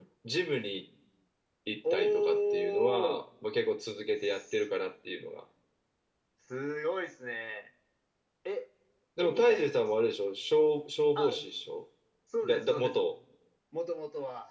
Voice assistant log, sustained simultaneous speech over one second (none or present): present